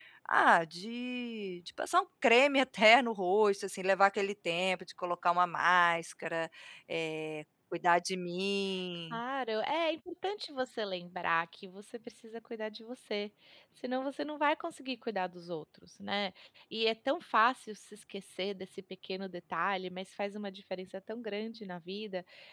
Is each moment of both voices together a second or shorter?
Yes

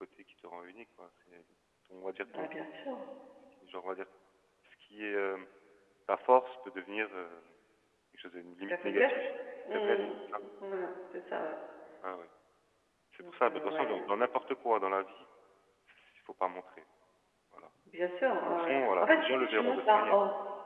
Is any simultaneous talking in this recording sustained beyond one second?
Yes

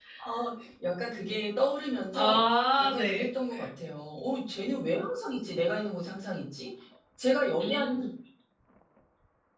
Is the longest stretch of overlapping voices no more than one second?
Yes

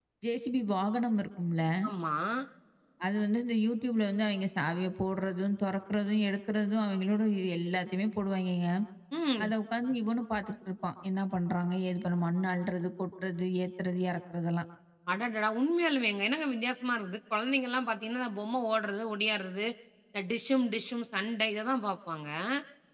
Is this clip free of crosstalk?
Yes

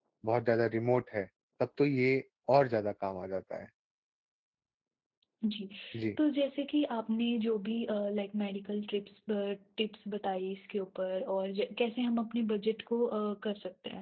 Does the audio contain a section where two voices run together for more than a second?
No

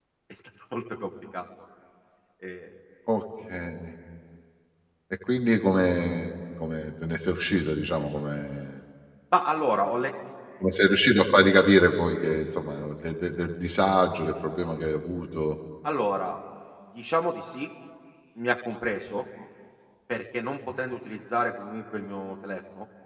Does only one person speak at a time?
Yes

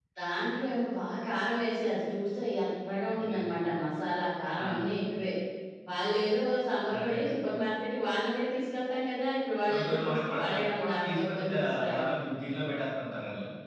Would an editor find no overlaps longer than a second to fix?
No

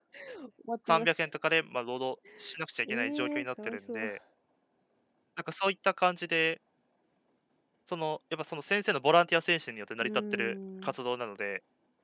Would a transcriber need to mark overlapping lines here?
Yes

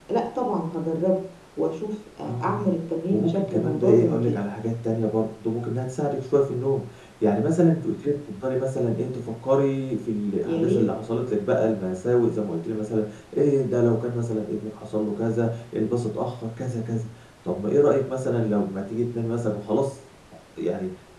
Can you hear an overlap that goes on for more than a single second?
Yes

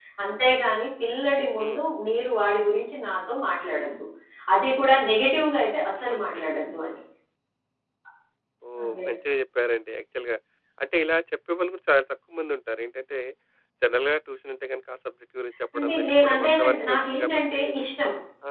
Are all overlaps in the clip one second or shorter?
No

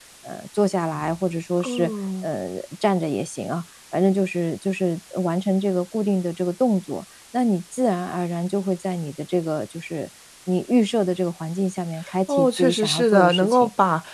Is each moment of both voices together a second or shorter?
No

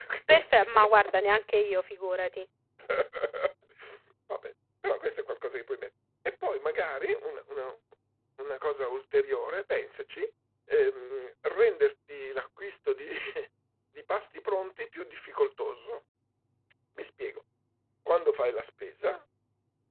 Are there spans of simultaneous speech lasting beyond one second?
No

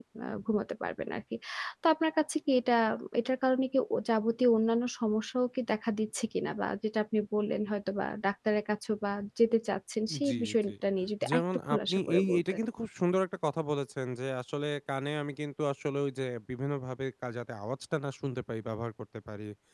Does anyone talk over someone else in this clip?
Yes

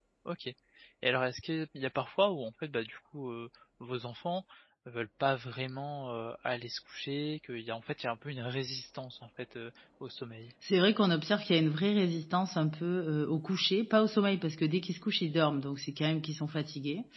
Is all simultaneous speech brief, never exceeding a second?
Yes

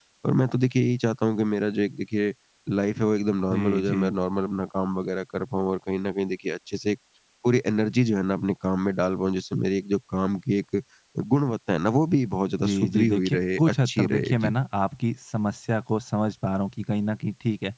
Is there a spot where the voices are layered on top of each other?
Yes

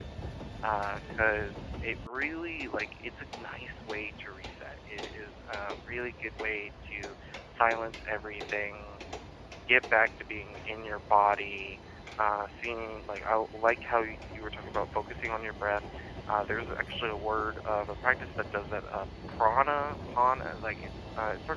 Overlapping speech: No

